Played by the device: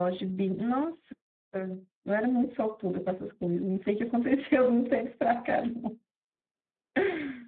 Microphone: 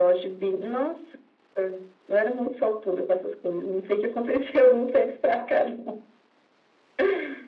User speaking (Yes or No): No